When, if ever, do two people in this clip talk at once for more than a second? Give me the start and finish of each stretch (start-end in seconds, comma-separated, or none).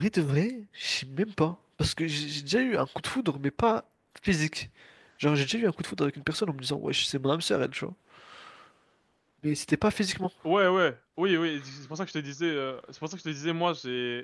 none